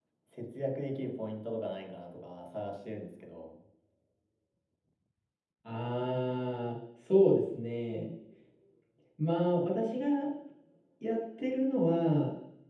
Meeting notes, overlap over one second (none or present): none